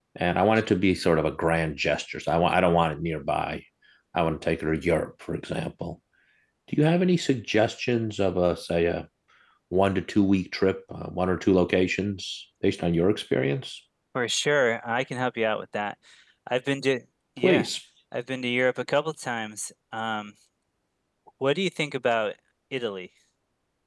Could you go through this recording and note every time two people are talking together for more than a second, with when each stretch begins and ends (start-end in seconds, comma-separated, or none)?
none